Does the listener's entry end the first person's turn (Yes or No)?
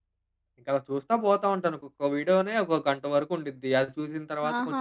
Yes